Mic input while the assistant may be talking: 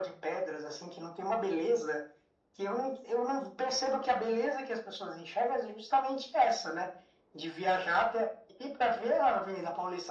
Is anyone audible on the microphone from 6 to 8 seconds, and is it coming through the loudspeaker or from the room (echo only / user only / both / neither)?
echo only